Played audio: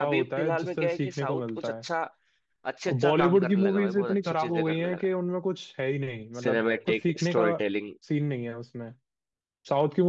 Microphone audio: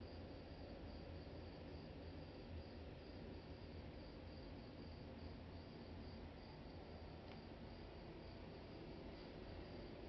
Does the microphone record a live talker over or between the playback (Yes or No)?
No